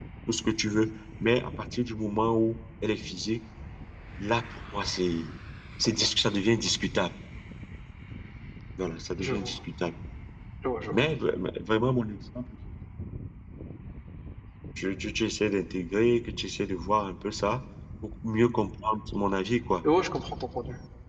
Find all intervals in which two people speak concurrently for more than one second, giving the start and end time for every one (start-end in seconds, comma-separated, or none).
none